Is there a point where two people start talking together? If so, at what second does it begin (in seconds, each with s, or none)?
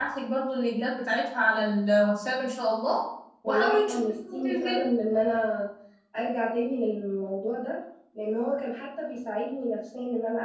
3.4 s